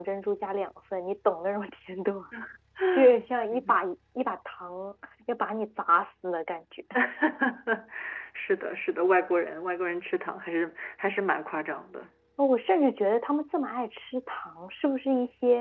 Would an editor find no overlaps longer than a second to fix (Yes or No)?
Yes